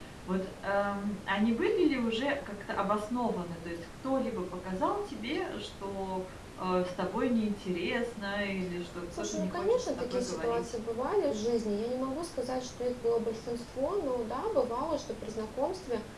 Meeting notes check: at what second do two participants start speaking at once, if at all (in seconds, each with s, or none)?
9.1 s